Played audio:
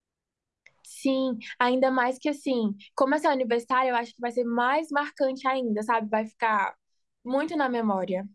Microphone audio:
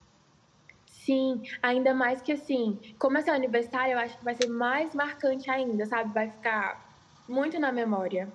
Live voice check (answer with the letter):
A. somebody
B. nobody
B